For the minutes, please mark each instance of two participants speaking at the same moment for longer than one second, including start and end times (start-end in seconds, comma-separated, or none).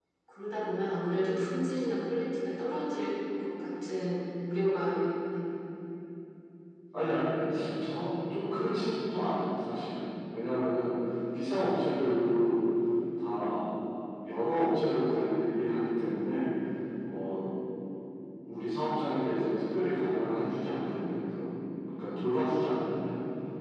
none